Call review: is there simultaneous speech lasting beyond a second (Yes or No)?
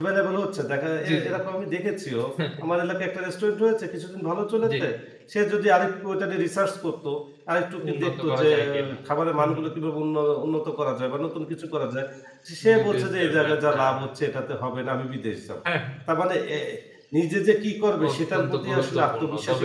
Yes